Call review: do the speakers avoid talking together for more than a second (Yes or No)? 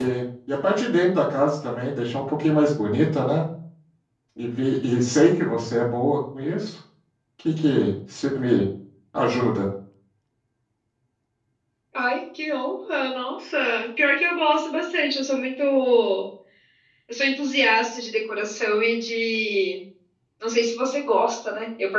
Yes